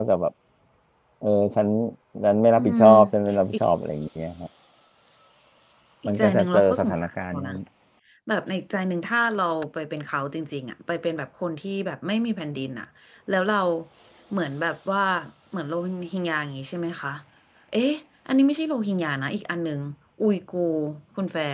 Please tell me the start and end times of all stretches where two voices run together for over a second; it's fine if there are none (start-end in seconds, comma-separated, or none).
6.1-7.5